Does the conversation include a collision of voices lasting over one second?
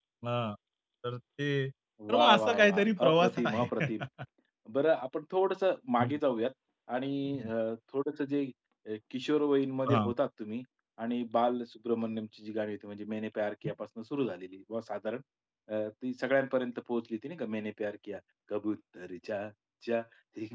Yes, from 2.0 s

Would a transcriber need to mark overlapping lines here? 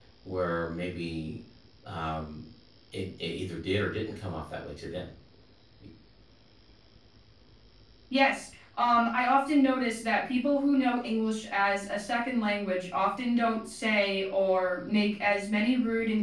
No

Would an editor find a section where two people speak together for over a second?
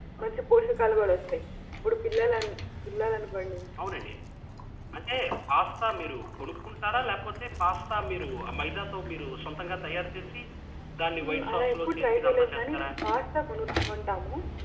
Yes, from 11.2 s

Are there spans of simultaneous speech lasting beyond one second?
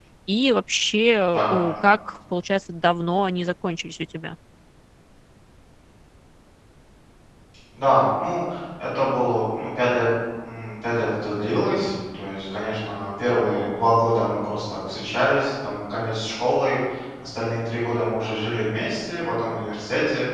No

